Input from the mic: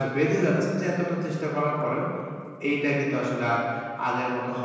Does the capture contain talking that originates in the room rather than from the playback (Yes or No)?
No